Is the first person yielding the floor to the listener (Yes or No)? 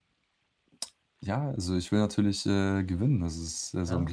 Yes